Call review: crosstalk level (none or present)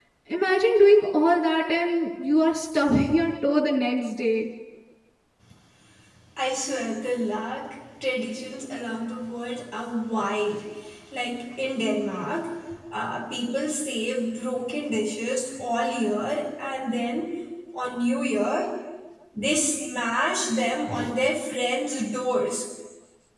none